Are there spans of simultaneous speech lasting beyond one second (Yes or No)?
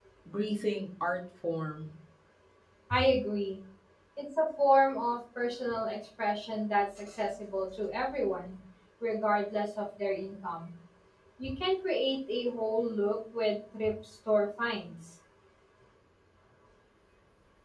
No